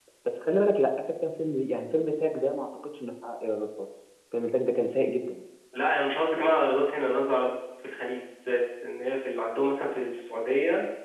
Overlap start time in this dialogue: none

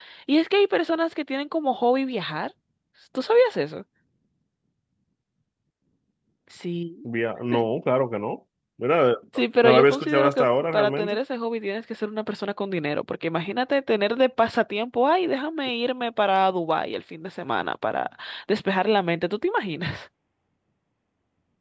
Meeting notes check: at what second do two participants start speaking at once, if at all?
9.6 s

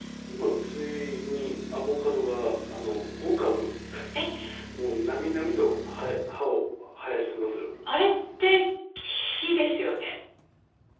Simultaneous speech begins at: none

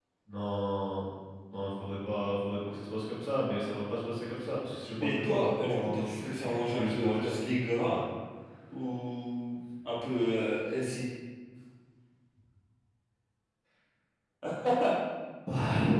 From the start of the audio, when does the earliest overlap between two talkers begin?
5.0 s

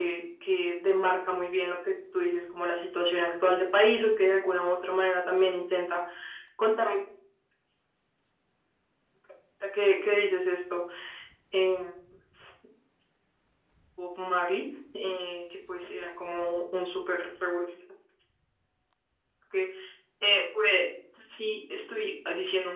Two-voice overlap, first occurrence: none

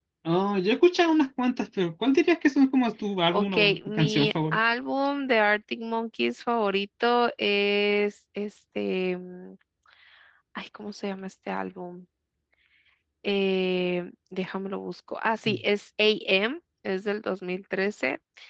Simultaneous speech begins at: 3.3 s

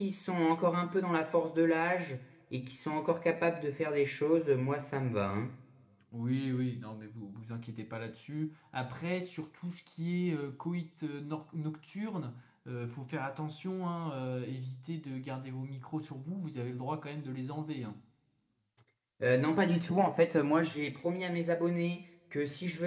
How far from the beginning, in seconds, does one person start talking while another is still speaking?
none

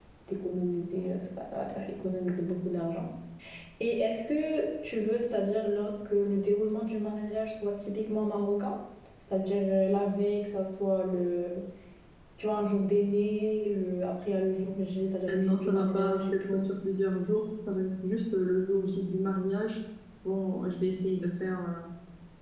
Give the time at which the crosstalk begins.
15.3 s

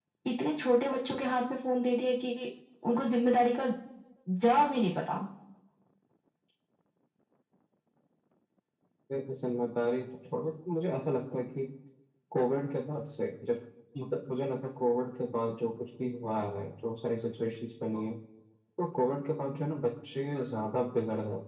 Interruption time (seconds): none

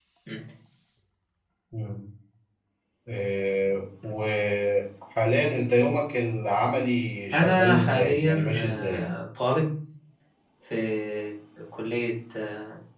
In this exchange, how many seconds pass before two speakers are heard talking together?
7.3 s

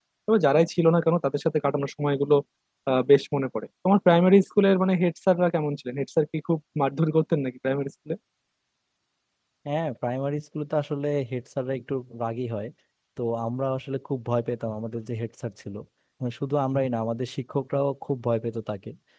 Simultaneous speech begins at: none

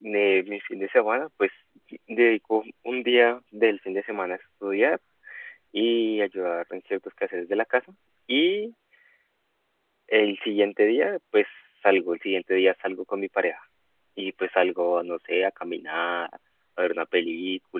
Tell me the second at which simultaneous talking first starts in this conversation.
none

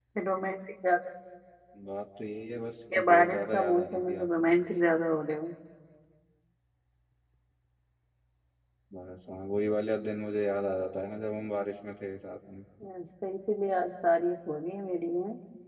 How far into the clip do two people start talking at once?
2.9 s

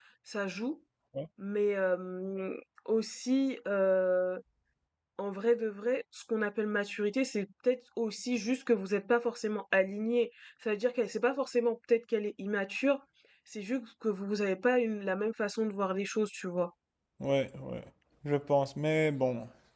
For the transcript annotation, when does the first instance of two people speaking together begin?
none

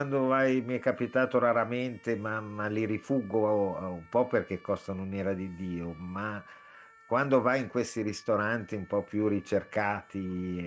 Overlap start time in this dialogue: none

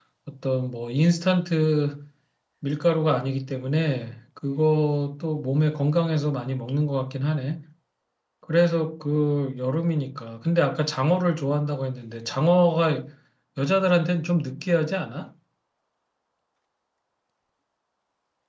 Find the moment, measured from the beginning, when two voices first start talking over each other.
none

